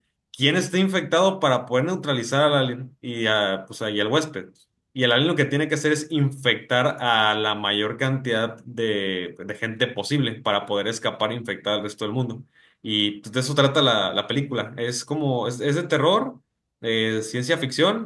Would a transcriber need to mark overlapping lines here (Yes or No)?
No